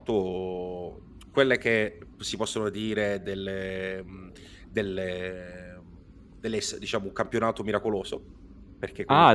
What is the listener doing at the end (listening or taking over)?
taking over